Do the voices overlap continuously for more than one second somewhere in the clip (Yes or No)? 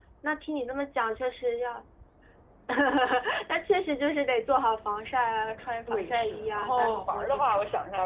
Yes